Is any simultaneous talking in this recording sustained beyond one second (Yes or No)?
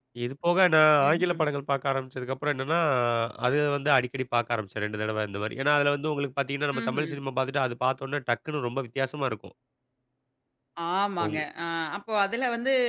No